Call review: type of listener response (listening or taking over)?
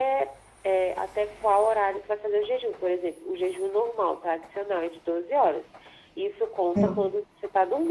listening